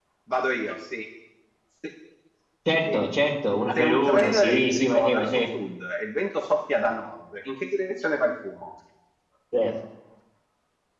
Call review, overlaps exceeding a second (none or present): present